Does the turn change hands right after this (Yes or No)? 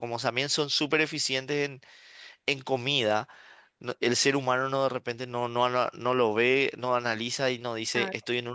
No